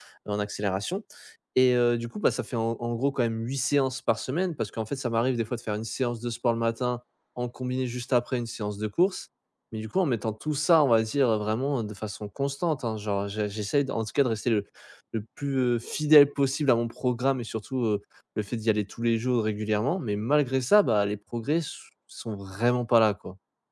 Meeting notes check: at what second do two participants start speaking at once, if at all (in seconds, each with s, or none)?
none